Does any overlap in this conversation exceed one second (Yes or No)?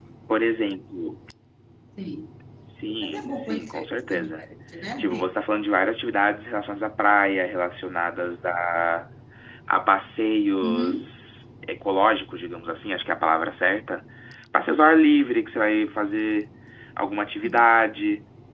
Yes